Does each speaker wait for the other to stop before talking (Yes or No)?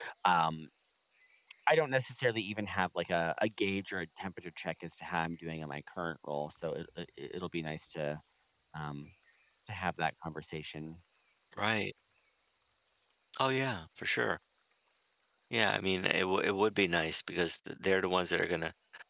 Yes